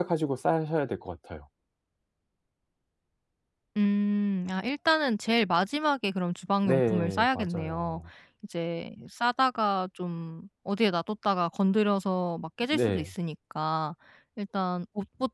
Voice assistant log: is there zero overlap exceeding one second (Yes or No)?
No